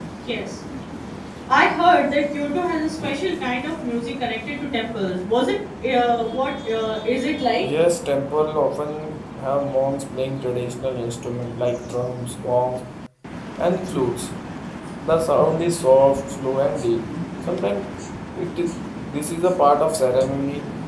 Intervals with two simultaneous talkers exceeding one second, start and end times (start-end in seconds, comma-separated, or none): none